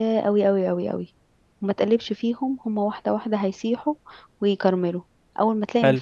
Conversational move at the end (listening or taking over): listening